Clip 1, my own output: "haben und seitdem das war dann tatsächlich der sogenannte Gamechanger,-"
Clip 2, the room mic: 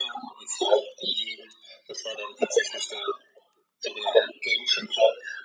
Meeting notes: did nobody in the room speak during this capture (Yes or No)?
Yes